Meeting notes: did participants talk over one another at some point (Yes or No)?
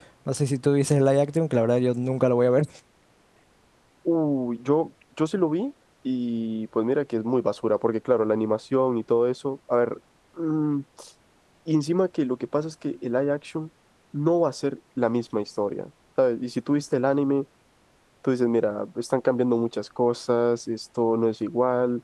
No